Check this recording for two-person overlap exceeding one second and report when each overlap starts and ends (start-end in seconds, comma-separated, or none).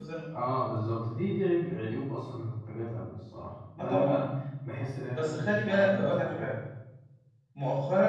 5.2-6.5